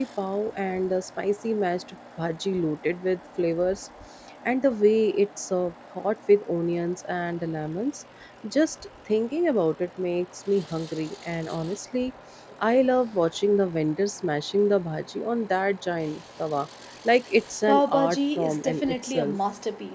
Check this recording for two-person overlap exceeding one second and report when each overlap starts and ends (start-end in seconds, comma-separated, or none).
17.7-19.4